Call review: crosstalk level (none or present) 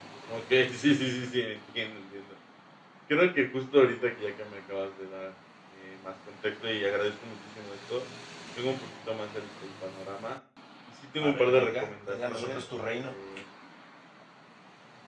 present